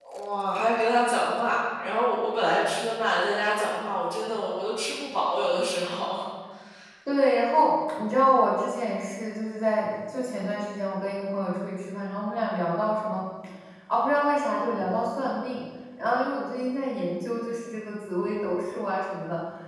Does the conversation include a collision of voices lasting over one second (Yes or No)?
No